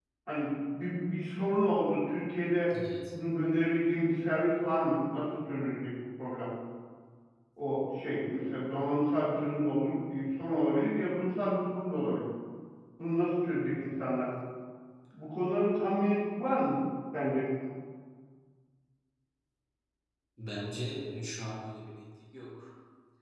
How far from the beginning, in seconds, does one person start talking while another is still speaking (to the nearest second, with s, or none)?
none